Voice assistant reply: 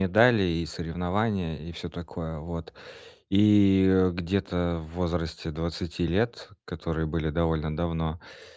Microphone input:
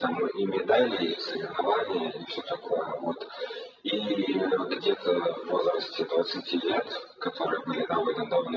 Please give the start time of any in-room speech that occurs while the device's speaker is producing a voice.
none

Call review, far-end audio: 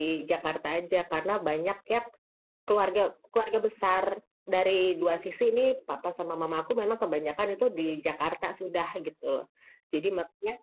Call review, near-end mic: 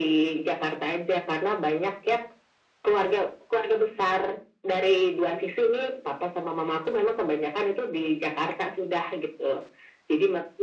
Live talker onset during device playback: none

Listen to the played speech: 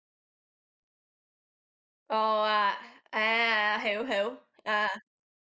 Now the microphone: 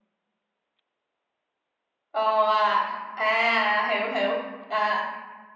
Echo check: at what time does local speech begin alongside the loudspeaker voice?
none

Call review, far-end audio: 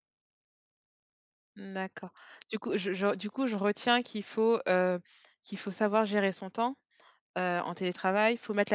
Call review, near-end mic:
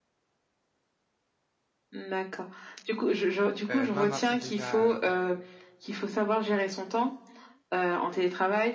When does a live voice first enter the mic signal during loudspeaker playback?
3.7 s

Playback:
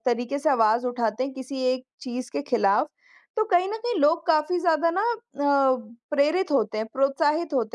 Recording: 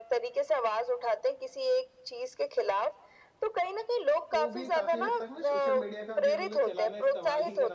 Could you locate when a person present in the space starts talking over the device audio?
4.3 s

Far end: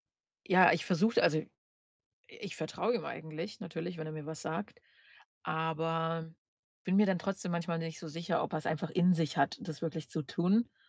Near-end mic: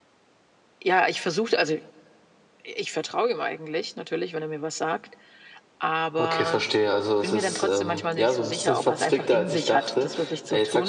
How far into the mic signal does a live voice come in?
6.2 s

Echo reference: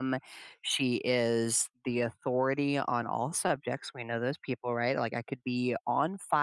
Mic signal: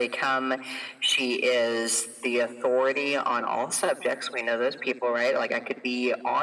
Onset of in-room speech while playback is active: none

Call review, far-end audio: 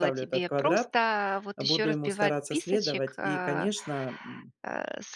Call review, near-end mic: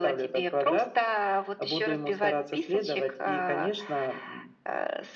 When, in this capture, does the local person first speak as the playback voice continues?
none

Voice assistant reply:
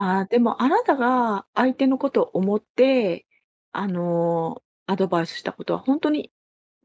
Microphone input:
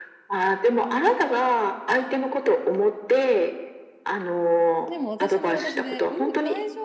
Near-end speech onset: 4.9 s

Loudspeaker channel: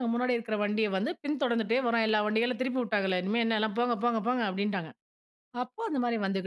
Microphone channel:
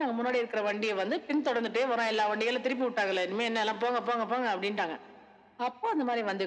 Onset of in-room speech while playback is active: none

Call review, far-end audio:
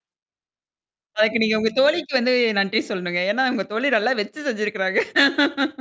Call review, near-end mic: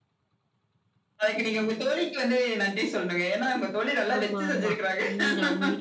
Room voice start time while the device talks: 4.1 s

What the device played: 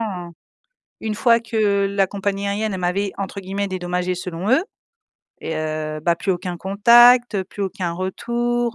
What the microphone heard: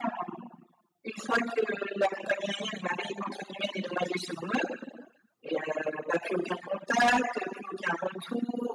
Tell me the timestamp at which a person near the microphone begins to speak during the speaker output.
none

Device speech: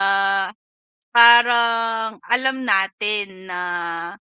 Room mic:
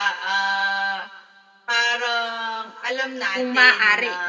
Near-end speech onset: 3.3 s

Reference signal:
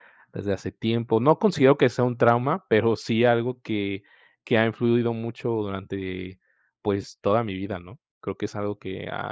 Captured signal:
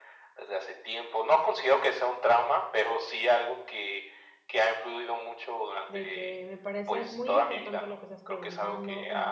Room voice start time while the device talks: 5.9 s

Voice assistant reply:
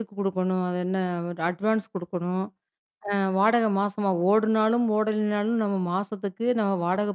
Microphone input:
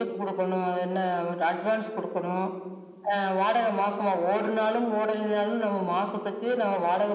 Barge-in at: none

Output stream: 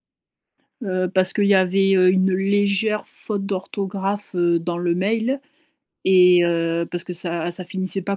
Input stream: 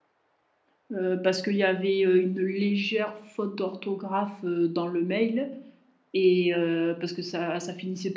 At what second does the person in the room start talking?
none

